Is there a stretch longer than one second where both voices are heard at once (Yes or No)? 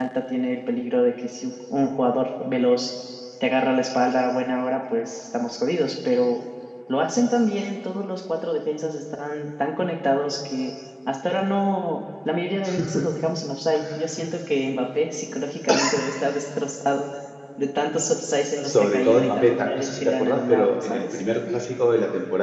Yes